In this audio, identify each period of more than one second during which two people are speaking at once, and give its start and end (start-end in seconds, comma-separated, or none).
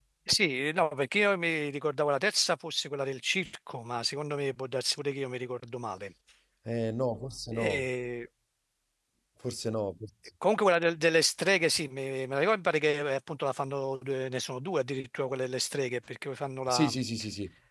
none